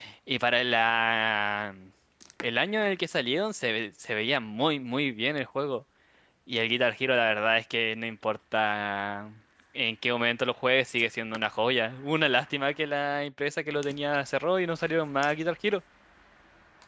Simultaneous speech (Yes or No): No